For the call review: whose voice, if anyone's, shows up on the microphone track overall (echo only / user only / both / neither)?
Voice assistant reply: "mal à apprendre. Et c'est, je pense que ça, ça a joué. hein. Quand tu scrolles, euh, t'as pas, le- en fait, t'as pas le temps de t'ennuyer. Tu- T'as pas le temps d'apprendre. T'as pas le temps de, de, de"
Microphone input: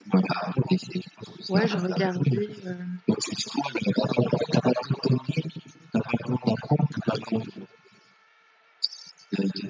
both